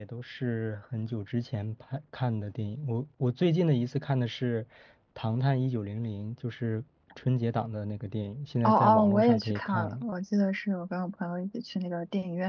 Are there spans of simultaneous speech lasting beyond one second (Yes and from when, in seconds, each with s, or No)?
Yes, from 8.6 s